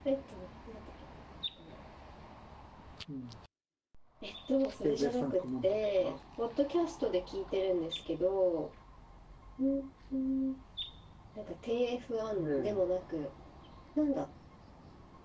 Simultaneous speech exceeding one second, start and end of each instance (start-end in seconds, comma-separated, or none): 4.8-6.2